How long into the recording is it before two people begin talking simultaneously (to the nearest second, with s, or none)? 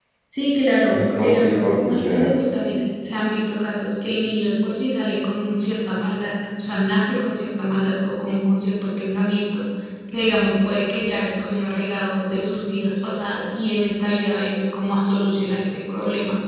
1 s